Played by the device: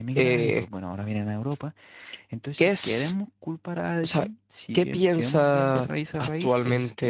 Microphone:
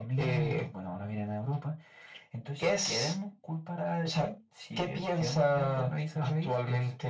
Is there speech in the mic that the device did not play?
No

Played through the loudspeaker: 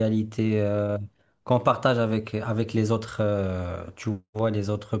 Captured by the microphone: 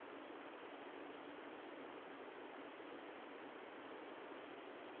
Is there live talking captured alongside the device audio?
No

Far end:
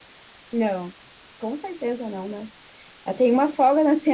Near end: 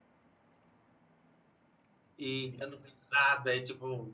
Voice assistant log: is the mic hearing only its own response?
No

